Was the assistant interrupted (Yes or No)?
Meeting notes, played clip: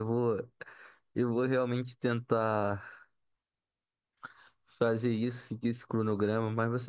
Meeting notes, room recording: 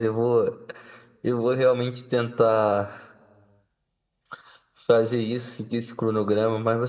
No